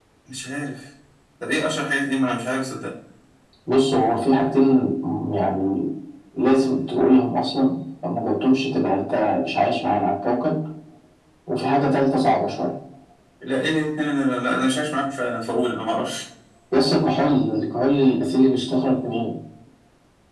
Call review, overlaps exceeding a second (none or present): none